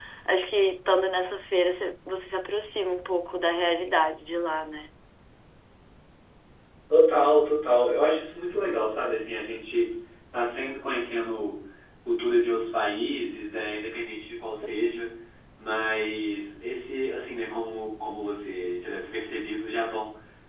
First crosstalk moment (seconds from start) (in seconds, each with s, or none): none